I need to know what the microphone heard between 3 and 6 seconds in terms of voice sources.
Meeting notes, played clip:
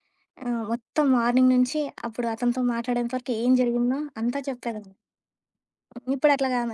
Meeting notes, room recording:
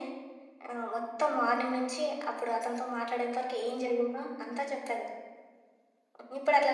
echo only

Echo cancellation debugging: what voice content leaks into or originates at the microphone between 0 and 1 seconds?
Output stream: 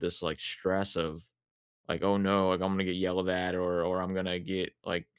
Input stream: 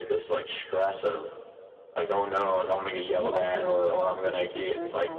echo only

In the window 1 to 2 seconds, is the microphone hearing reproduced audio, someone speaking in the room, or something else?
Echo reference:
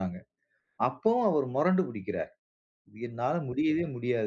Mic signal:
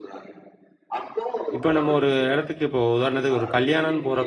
both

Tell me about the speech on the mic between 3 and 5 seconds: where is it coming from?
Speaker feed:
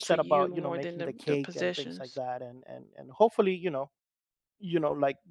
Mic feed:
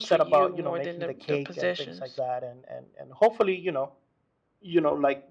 echo only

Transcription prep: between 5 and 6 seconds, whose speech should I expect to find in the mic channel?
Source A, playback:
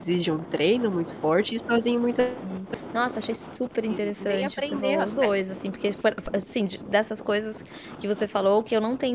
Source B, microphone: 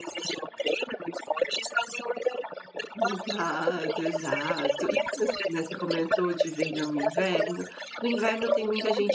both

